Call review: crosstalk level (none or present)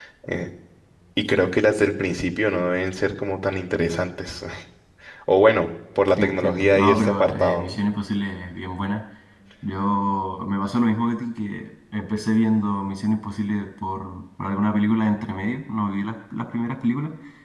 present